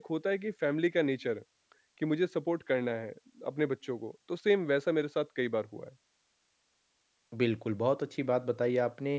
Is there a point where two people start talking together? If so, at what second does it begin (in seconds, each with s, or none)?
none